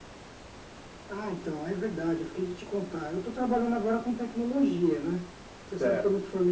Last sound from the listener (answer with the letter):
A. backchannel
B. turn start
A